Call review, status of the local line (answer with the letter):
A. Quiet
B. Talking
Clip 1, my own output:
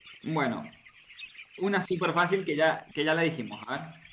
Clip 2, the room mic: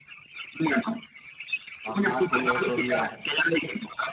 B